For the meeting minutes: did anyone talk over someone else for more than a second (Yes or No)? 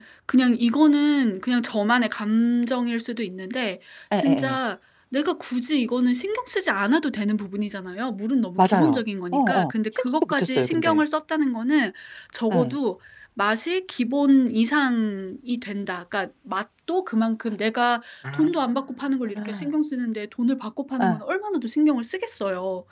Yes